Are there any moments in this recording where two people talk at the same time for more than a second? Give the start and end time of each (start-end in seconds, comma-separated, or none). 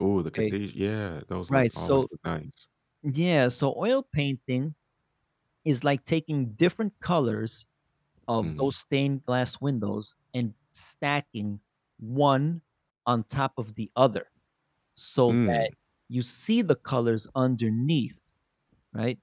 none